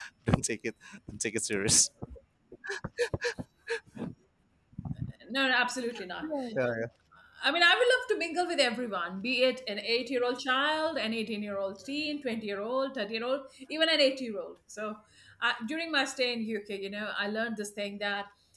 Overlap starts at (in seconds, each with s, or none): none